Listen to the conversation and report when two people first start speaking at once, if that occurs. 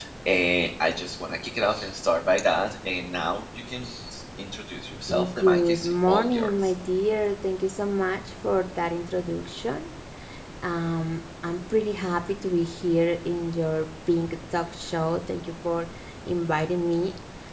5 s

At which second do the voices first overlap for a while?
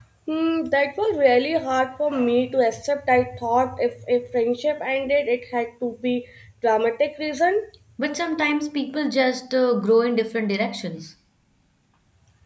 none

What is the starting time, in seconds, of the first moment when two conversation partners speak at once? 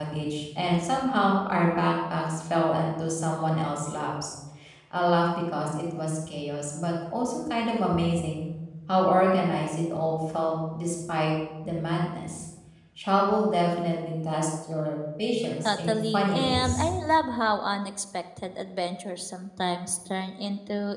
16 s

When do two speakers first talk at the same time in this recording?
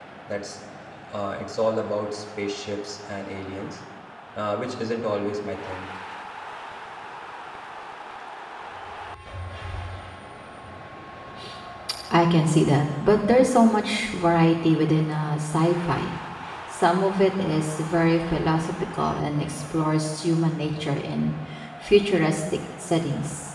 none

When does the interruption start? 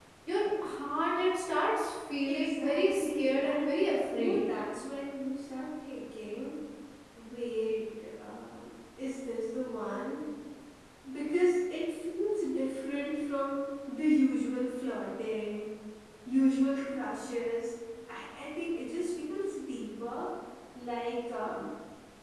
2 s

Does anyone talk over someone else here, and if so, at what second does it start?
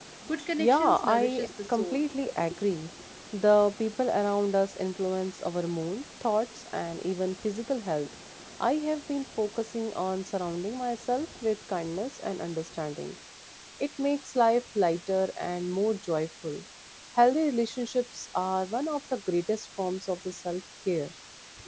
1 s

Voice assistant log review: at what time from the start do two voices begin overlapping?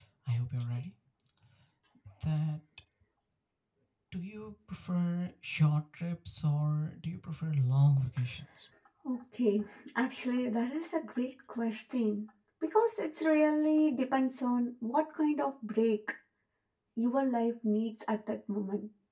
none

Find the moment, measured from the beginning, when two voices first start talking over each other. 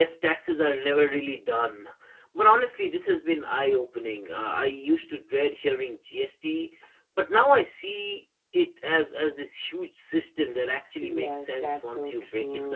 11 s

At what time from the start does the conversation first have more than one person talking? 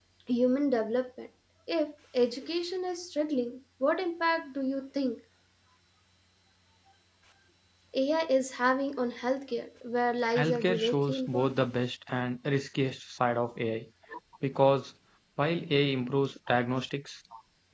10 s

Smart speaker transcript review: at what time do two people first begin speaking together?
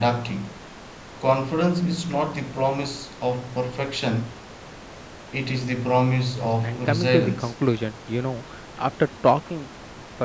6 s

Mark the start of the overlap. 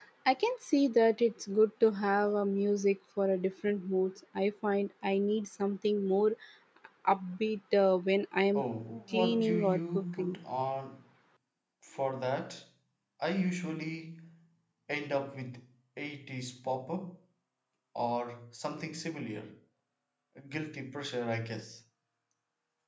9 s

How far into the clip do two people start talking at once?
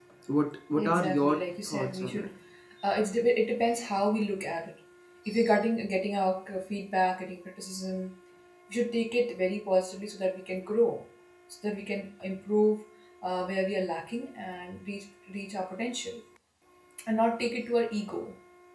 1 s

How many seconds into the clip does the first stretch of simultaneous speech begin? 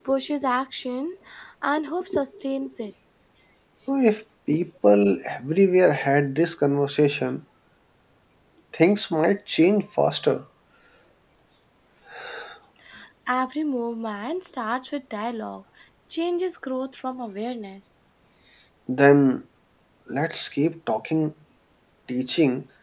none

